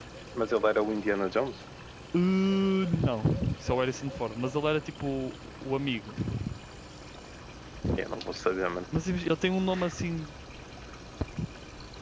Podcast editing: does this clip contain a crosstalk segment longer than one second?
No

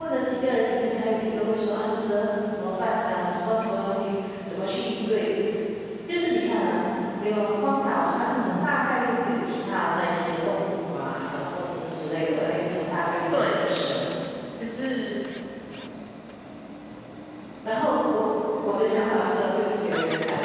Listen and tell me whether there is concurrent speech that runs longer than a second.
No

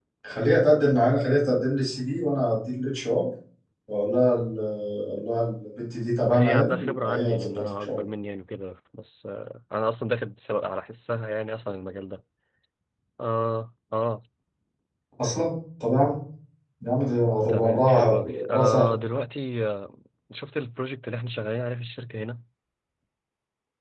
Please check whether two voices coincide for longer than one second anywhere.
Yes, from 6.3 s

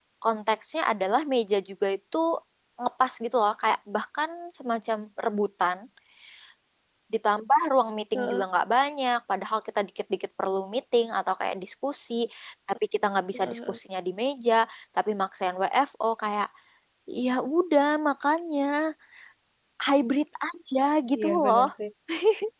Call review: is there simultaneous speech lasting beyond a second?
No

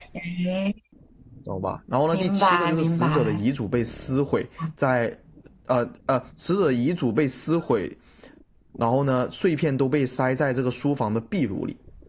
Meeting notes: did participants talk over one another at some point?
Yes, from 2.1 s

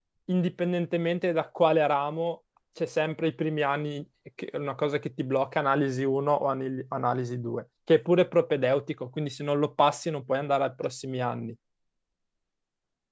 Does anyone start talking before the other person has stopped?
No

